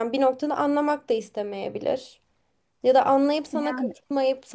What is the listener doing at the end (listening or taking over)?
listening